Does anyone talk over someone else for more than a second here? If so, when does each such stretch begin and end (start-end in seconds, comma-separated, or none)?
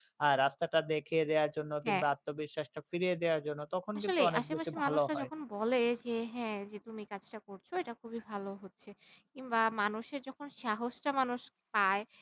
4.0-5.3